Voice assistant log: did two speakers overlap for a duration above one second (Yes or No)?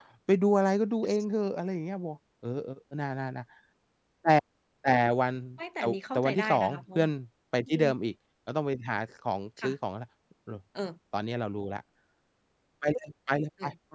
Yes